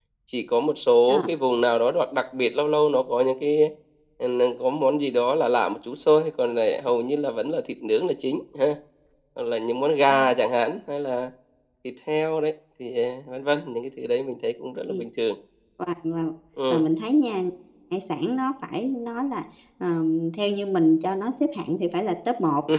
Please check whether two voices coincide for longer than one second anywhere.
No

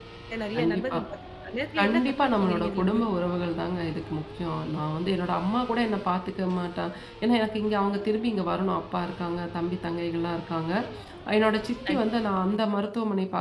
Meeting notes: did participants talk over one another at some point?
Yes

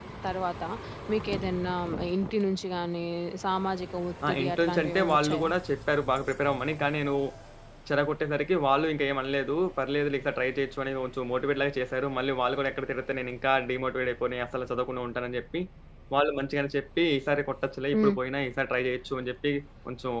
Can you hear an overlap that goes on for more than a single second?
Yes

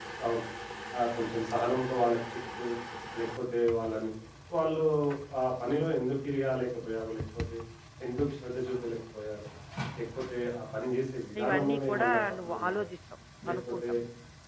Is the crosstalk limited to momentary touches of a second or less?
No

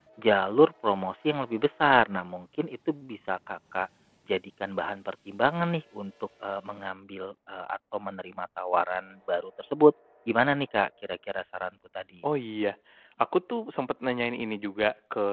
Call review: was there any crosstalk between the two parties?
No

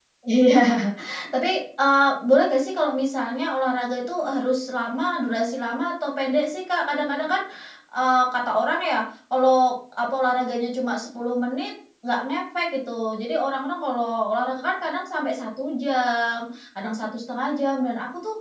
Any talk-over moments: No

